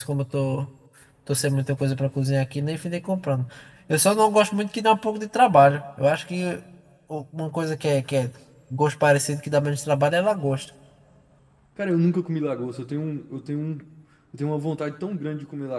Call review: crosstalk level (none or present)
none